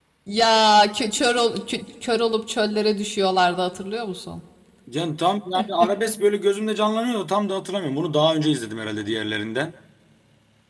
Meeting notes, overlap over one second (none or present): none